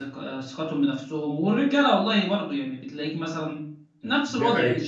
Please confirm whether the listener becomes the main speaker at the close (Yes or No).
No